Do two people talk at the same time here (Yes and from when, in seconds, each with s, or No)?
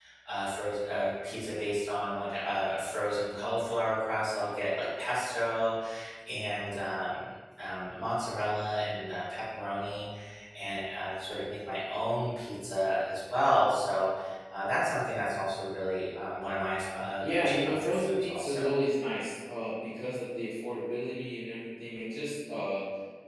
Yes, from 17.2 s